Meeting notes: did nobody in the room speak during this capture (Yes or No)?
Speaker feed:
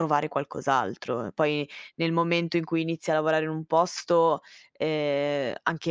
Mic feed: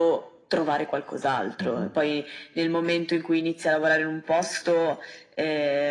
No